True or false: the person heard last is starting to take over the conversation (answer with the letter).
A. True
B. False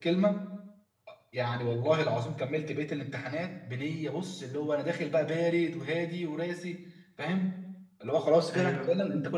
B